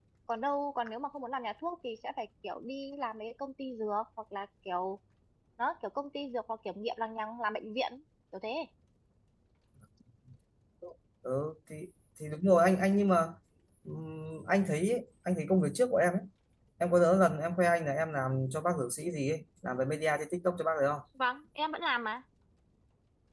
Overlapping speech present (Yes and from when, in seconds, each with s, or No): No